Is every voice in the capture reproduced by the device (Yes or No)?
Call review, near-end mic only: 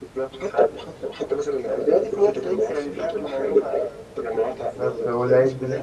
No